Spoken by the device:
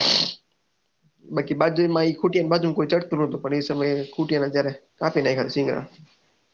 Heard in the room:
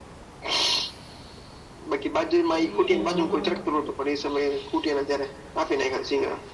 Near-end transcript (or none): પછી નવ